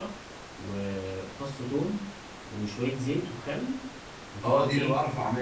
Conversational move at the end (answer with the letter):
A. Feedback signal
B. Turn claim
B